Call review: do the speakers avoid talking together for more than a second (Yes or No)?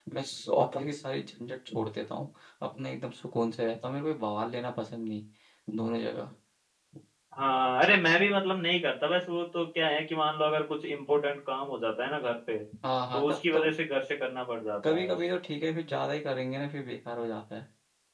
Yes